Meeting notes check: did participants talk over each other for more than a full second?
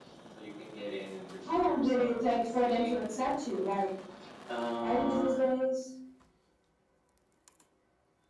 Yes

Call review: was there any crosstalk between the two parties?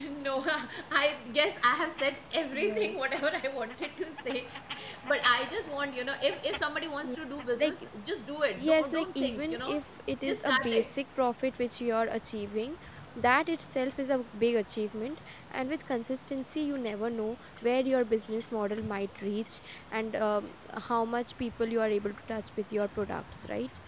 Yes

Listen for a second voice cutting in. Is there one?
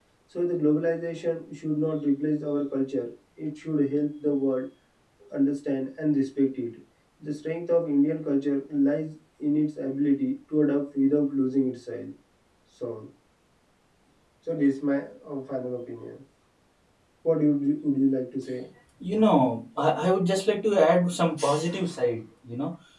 No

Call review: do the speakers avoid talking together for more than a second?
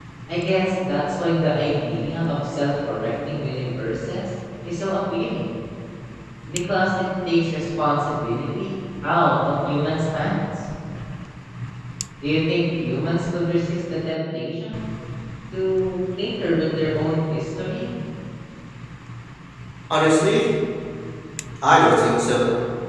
Yes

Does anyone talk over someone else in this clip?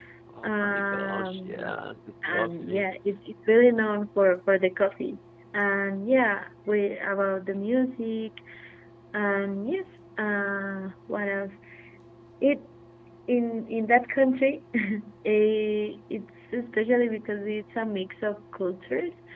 Yes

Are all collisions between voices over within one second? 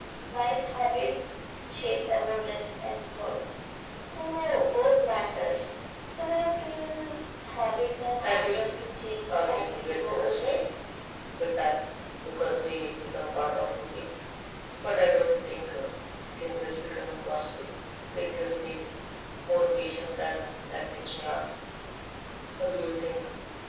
No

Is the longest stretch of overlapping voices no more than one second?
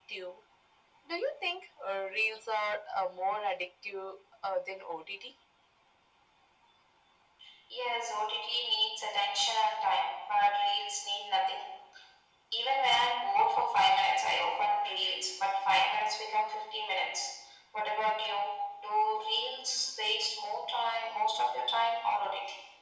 Yes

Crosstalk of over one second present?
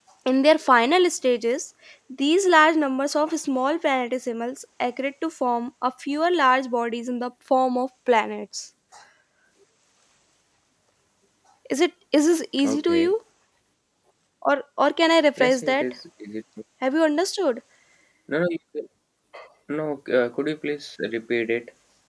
No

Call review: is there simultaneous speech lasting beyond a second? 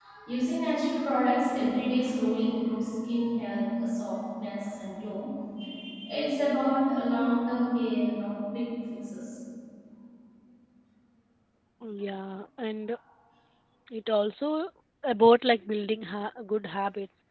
No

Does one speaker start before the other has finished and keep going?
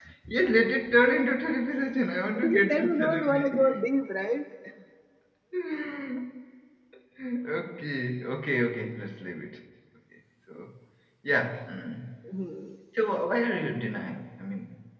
Yes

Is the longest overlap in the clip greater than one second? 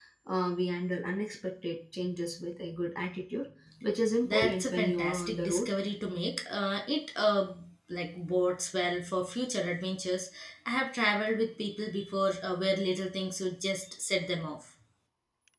Yes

